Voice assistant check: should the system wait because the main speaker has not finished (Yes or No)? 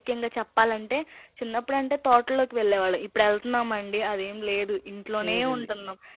Yes